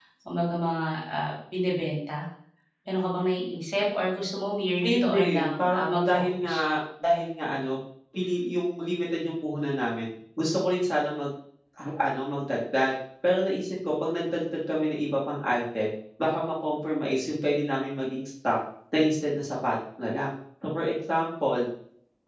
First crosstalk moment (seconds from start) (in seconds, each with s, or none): 4.8 s